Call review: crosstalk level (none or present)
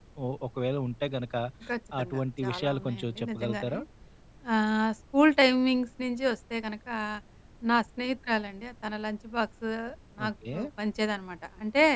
present